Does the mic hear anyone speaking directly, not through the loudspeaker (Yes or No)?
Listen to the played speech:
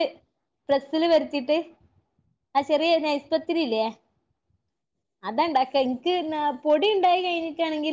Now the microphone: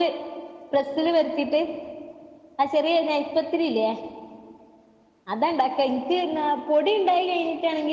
No